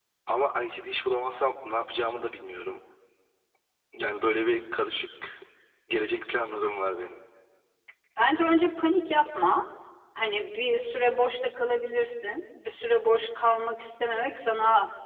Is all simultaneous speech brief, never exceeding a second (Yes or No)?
Yes